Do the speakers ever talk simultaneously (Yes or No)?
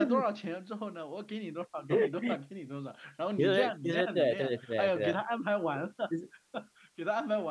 Yes